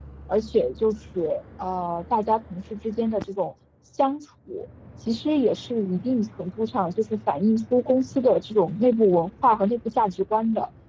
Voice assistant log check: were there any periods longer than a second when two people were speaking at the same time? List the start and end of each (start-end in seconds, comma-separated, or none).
none